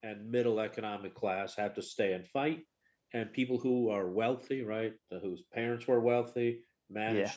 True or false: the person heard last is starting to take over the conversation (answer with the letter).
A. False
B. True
A